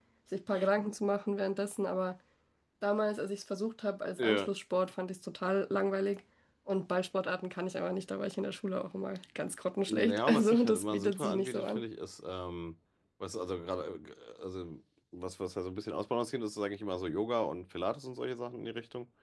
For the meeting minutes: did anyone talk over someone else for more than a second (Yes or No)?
Yes